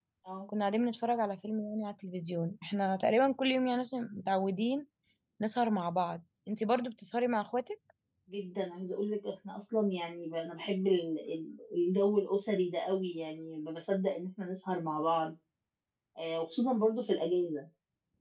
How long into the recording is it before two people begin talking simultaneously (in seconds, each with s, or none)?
none